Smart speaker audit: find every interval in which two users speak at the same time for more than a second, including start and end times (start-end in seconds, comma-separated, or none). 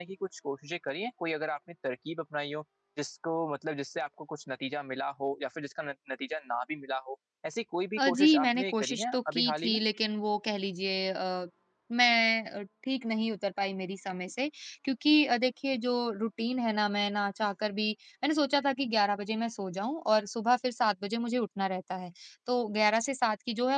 8.0-9.8